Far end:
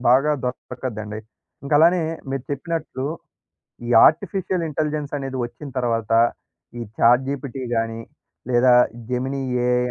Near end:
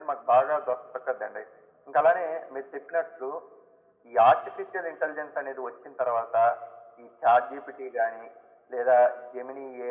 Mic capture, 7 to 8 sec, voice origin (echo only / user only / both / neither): echo only